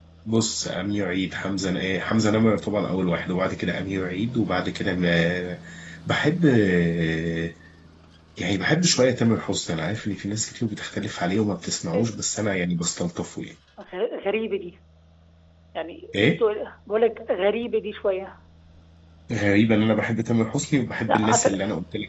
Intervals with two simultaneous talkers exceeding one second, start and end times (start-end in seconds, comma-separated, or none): none